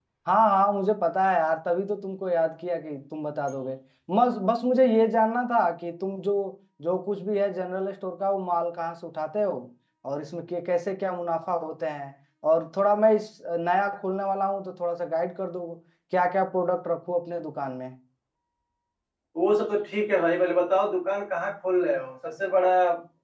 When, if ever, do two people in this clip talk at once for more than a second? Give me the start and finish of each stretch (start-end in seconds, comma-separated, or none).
none